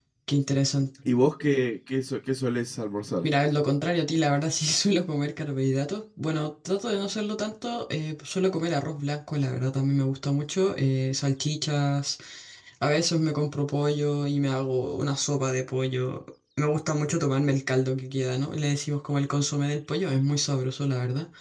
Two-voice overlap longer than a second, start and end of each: none

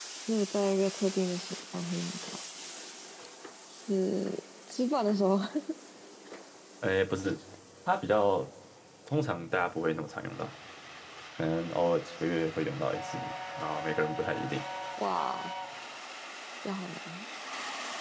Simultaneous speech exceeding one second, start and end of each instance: none

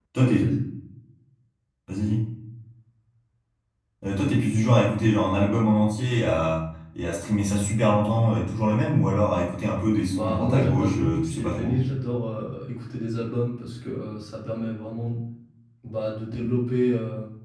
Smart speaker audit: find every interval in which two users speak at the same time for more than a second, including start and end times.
10.1-11.8

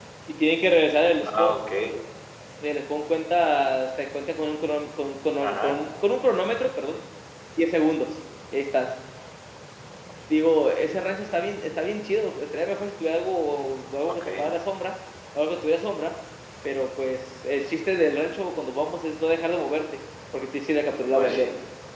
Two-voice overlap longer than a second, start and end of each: none

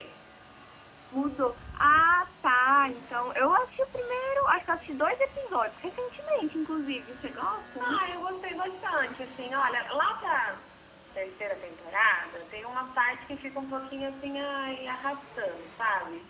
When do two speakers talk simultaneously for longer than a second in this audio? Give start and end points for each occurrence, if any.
none

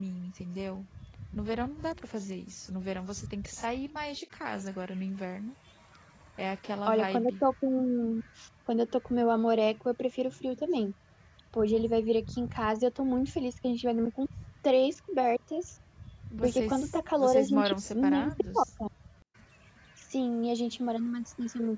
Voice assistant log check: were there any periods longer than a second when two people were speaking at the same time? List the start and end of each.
16.4-18.6

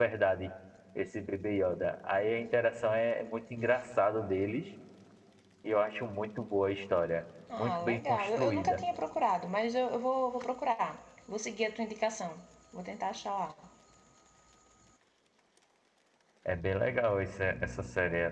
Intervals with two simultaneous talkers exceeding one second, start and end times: 7.5-8.8

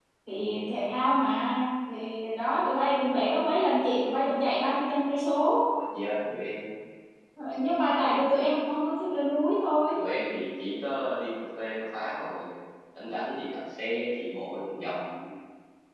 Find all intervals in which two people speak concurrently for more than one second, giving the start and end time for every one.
none

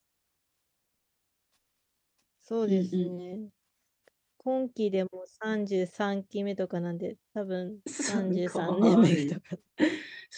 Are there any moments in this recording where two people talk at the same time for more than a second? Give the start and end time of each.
8.1-9.4

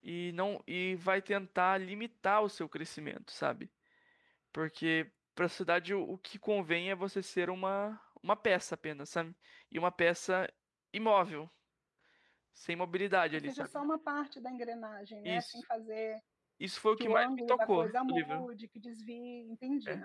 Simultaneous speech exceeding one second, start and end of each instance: 17.0-18.5

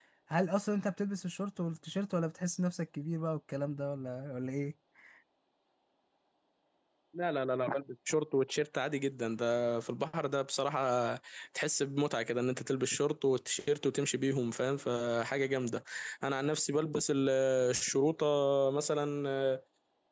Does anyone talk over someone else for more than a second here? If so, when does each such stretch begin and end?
none

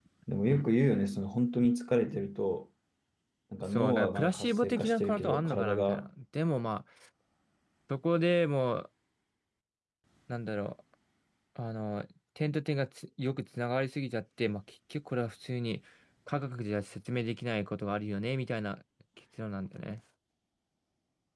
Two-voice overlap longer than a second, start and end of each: 3.6-6.1

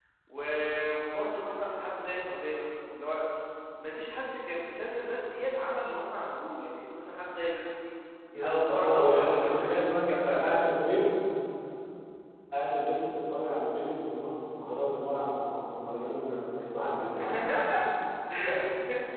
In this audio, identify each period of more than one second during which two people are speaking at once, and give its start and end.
8.4-10.6

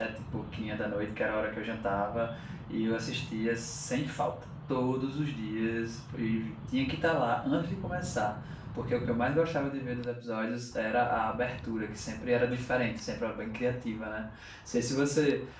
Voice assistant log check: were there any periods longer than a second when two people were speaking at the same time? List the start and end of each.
none

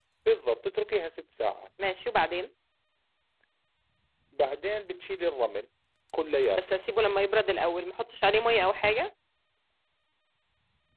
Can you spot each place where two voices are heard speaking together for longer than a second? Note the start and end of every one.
none

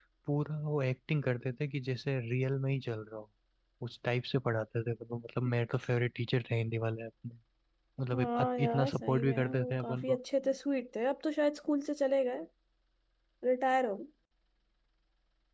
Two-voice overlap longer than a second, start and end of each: 8.1-10.2

